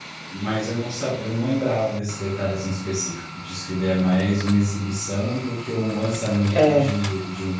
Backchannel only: Yes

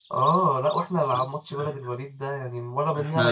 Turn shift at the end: No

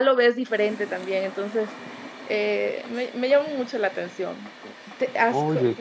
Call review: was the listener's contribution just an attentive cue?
Yes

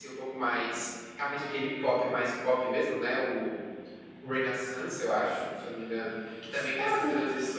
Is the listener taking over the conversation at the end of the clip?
No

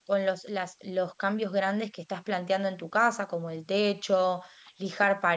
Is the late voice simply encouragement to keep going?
Yes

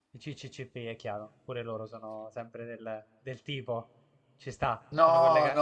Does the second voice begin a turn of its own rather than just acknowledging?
Yes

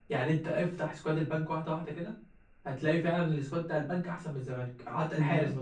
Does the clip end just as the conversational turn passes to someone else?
No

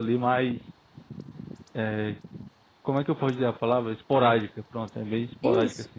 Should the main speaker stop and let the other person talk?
Yes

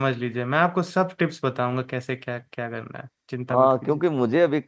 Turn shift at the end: Yes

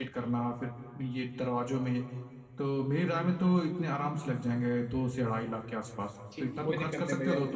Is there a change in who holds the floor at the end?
Yes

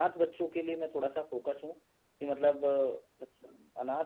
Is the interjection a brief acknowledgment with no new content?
Yes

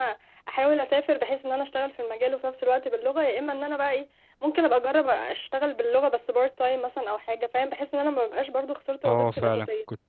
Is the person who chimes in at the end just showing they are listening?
No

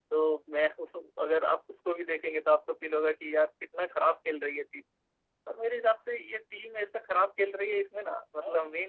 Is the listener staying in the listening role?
Yes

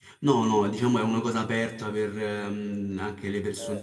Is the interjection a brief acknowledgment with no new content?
Yes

